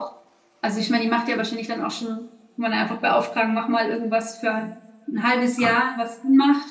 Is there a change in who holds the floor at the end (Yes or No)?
No